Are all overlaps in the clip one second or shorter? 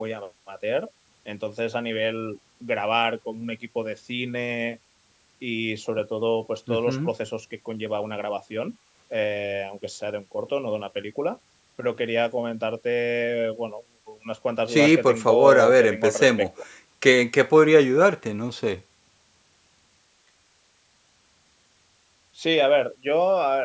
No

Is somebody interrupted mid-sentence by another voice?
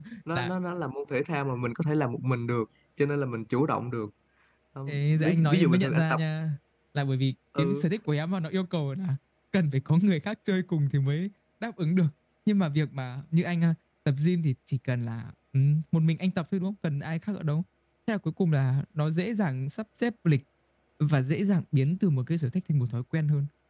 Yes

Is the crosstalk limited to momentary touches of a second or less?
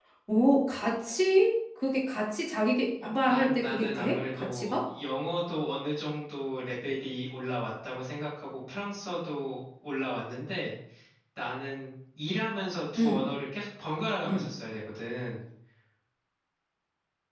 No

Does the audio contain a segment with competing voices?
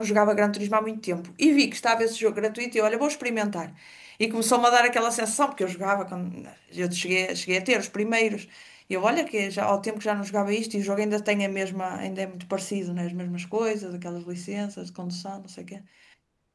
No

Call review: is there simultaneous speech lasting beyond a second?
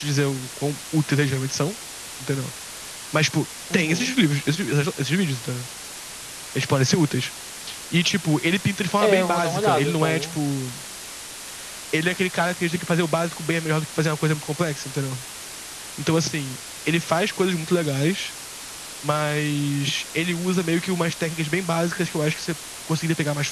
Yes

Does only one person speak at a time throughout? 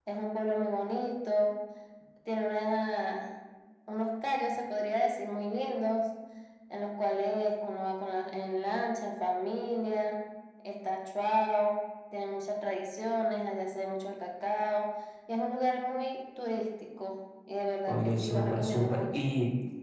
No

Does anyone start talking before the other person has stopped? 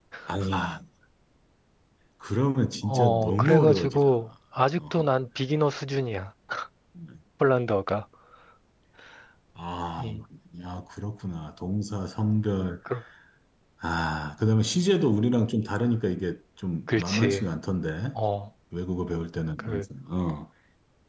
Yes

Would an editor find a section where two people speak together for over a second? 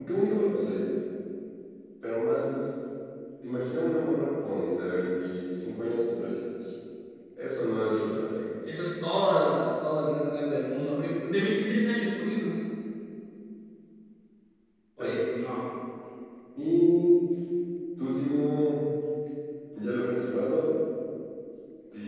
No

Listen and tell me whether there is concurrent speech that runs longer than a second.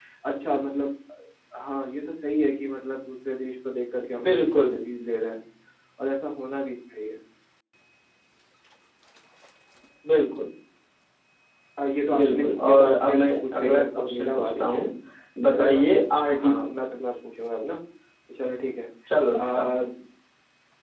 Yes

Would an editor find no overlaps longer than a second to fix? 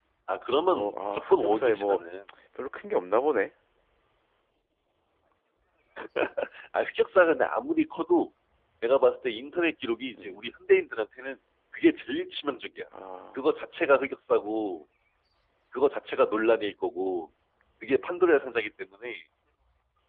No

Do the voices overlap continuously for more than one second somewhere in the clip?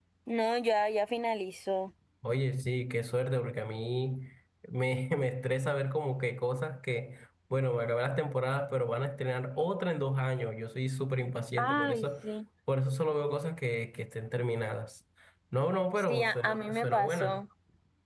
Yes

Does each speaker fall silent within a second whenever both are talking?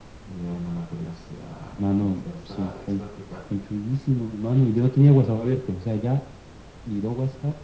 No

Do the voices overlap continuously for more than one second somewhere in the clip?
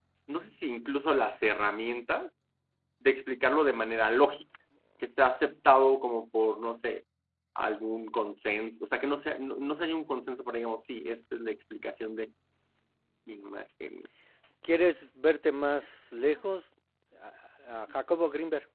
No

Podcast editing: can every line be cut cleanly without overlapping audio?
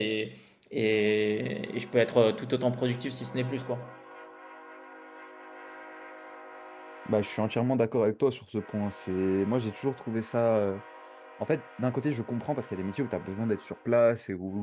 Yes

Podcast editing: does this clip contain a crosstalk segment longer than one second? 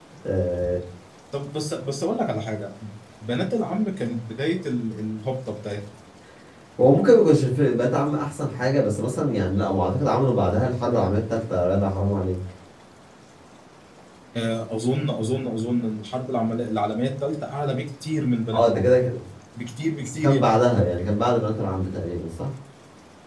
No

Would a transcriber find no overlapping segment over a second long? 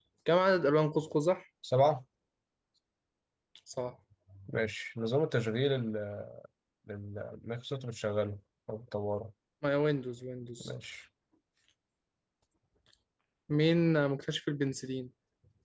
Yes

